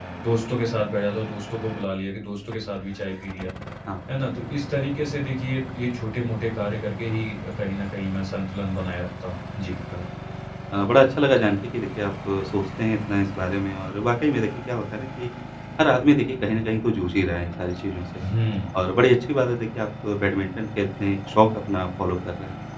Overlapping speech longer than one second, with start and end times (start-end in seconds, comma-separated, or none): none